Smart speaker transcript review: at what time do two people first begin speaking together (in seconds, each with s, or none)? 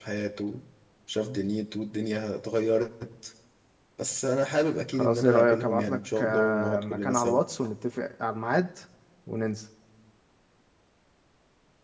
4.9 s